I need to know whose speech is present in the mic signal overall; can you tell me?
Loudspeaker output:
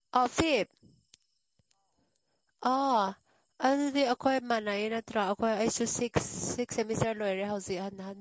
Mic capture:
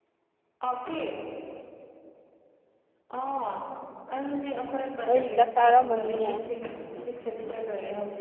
both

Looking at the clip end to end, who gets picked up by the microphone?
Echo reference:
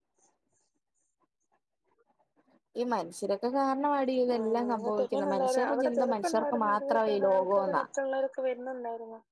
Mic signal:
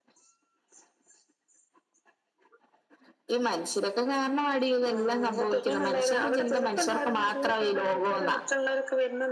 echo only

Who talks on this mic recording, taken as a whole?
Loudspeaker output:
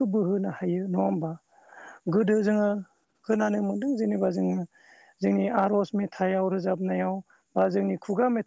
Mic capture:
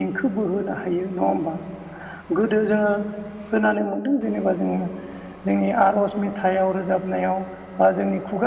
echo only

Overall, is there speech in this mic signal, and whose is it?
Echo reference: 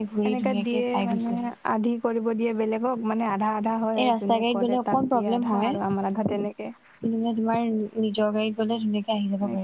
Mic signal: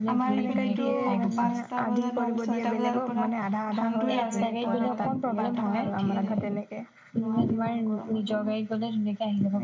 both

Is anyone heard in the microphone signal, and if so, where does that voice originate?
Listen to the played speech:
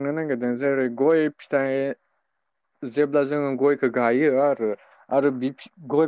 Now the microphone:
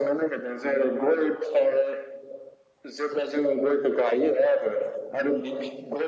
echo only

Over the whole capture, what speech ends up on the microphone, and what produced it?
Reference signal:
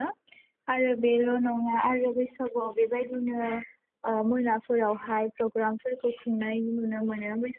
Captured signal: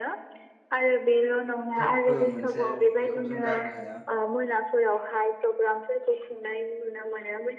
both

